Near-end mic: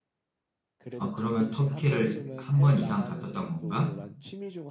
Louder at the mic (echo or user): user